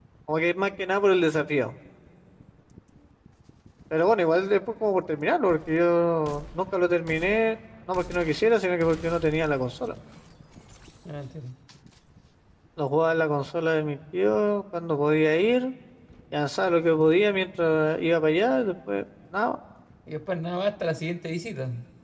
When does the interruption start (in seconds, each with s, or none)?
none